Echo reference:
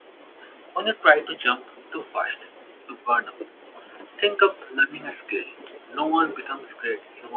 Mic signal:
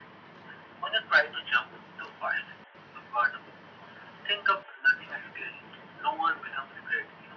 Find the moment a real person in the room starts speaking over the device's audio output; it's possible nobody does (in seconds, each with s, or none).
none